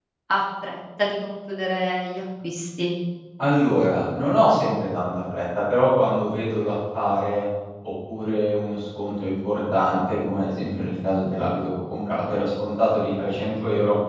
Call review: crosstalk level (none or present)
none